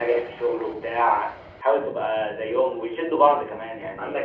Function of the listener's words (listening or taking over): listening